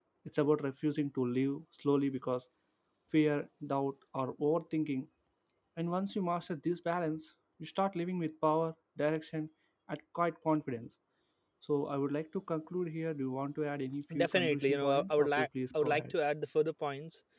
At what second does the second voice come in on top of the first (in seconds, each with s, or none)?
14.1 s